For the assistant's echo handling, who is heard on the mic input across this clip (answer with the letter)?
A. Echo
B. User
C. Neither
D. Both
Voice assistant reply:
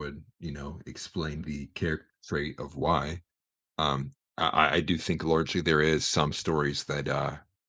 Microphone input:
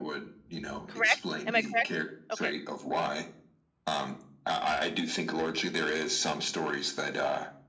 D